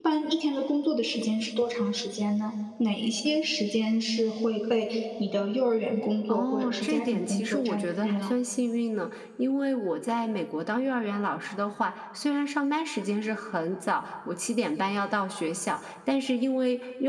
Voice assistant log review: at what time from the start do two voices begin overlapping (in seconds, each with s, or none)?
6.3 s